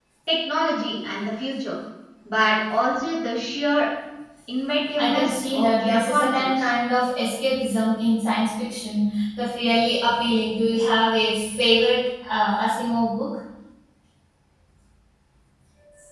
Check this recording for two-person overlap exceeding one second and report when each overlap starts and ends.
5.0-6.7

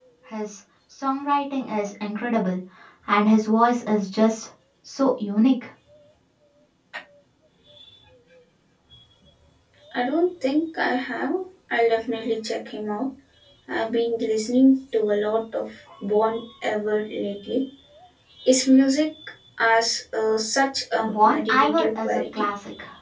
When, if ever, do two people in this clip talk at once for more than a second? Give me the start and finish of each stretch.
21.0-22.4

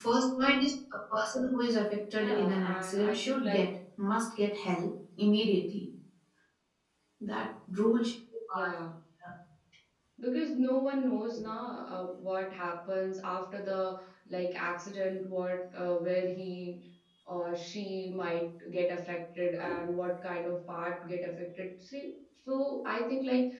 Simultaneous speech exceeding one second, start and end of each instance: 2.2-3.6

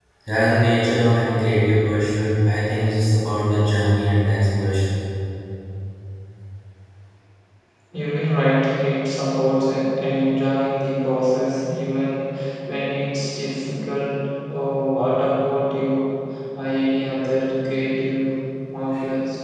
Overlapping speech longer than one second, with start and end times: none

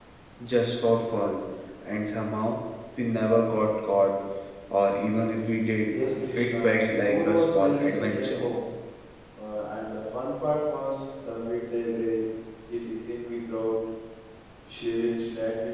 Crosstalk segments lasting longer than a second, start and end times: 6.3-8.4

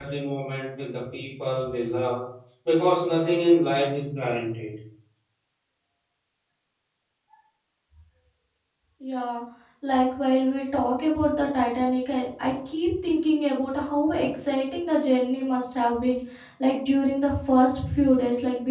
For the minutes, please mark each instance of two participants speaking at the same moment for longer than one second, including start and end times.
none

